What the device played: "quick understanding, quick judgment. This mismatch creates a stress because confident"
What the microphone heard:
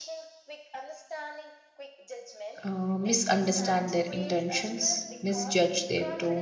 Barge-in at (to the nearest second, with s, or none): 3 s